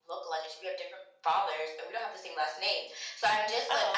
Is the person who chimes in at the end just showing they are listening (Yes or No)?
Yes